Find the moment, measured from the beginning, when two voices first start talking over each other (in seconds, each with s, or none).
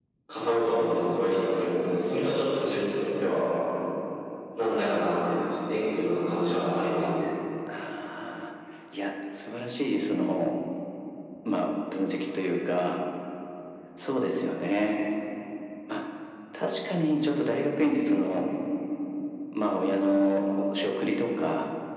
none